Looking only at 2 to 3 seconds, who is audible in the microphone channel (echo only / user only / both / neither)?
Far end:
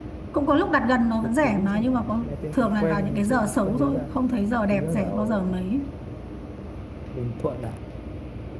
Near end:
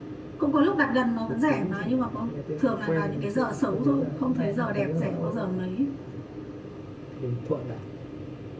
echo only